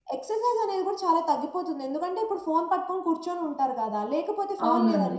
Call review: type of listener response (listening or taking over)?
listening